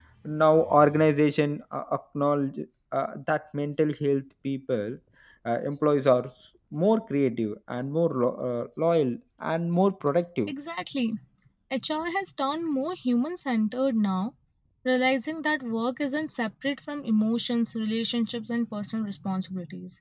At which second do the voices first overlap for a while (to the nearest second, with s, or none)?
none